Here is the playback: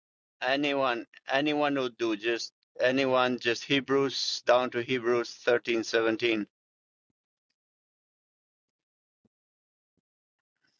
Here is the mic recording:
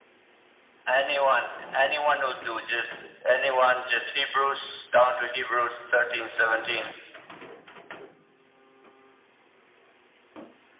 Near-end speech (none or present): none